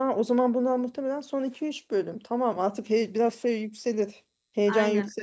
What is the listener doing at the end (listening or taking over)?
listening